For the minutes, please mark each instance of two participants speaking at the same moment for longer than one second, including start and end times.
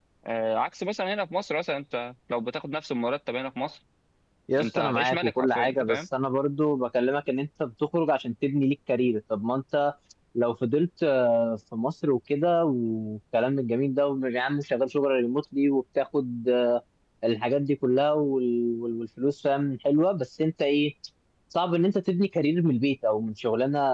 4.6-6.0

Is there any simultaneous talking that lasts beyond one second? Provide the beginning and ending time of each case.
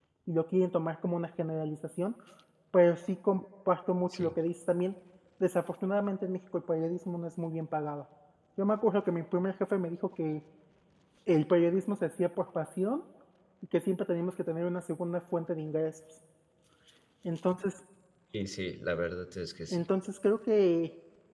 none

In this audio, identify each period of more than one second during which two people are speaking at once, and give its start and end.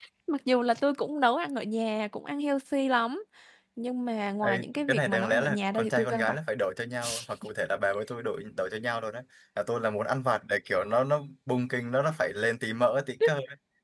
4.9-6.4

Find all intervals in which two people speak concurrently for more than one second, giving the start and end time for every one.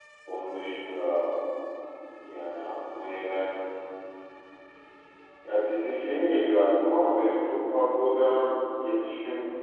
none

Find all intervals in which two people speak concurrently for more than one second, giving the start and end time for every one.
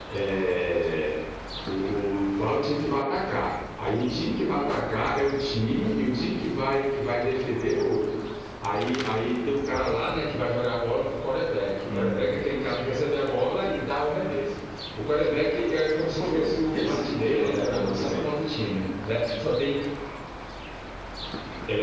16.2-18.2

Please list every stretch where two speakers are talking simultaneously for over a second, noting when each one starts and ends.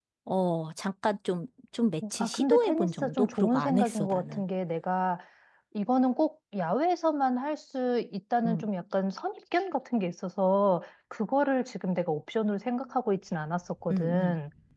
2.2-4.4

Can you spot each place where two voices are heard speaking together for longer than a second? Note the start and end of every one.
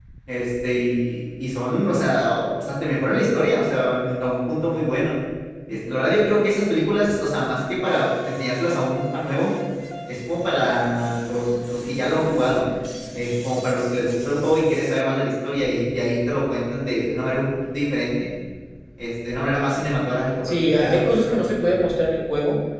20.4-21.9

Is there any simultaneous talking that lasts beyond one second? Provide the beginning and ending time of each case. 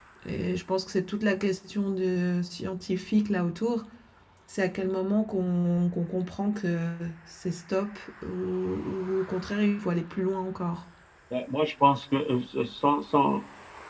none

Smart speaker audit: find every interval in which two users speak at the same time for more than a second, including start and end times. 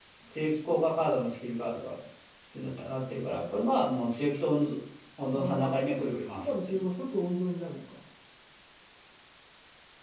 5.3-6.8

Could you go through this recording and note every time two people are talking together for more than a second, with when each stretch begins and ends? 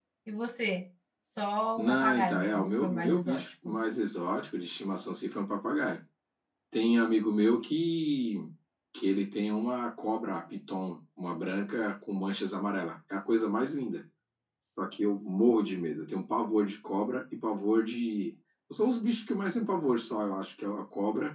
1.8-3.8

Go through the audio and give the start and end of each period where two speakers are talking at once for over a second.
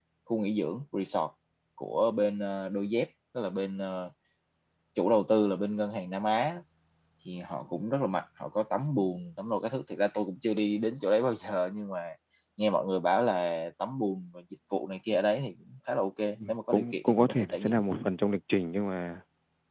16.5-17.8

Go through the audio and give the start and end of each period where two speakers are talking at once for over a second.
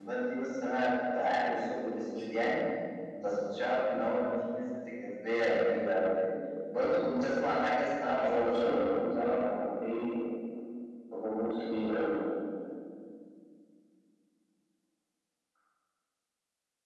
8.2-9.6

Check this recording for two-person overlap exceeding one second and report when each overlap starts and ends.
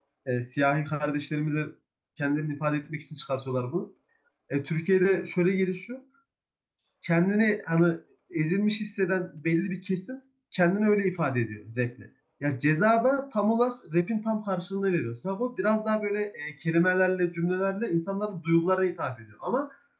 none

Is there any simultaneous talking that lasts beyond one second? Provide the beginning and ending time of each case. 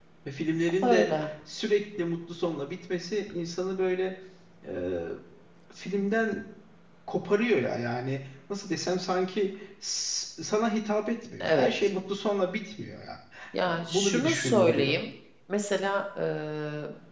13.7-15.0

